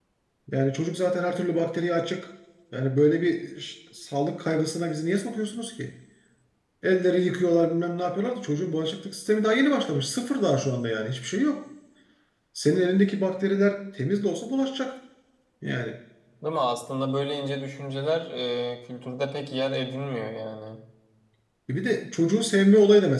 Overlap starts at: none

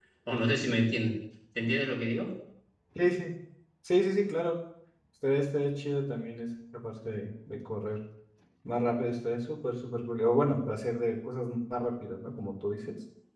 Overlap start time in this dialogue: none

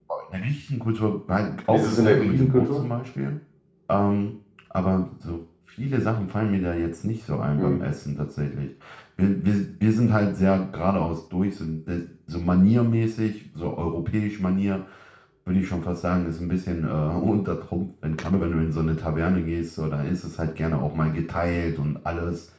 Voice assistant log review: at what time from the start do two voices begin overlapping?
1.7 s

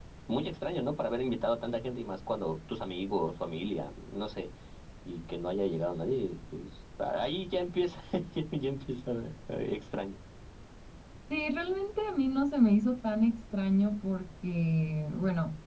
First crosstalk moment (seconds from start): none

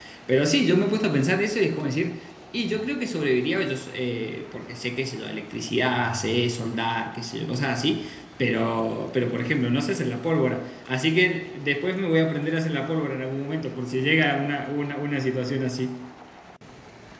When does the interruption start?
none

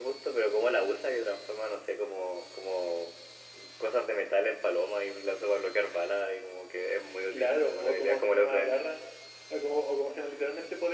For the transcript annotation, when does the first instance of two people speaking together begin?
7.3 s

